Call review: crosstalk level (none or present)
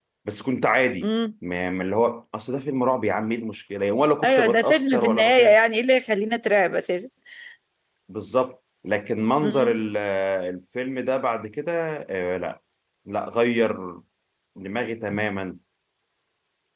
present